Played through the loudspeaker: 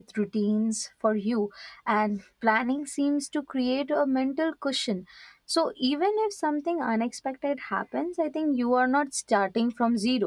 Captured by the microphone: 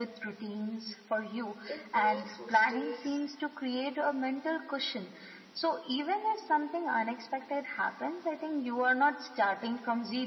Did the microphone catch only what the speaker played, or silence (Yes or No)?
No